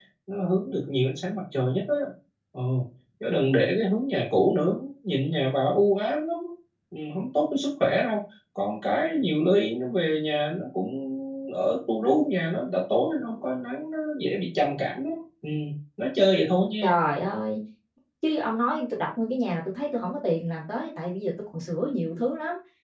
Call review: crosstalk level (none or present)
none